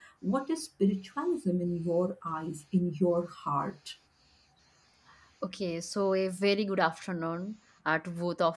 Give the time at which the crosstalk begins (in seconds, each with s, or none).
none